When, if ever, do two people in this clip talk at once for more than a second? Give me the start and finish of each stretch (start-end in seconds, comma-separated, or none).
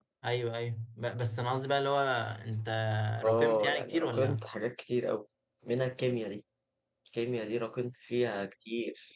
3.2-4.5